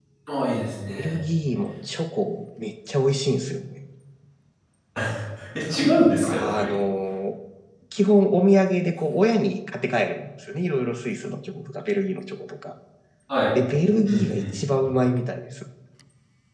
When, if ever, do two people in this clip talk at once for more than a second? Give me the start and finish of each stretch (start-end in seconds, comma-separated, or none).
none